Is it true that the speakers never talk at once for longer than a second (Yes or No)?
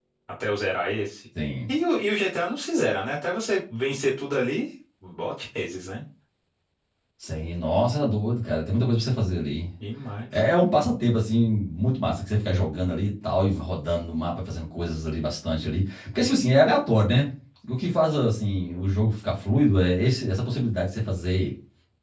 Yes